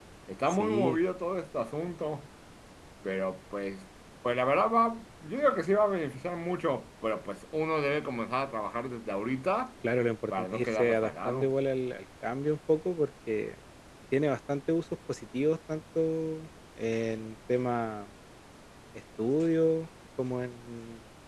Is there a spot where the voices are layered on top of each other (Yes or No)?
Yes